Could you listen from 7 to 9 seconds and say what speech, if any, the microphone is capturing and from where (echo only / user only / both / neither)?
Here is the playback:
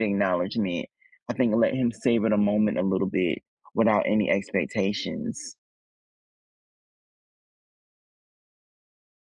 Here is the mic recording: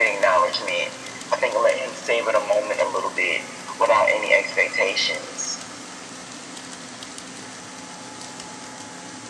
neither